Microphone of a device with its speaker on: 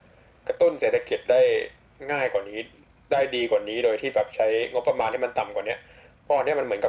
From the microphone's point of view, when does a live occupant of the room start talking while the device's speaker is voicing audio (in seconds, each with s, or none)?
none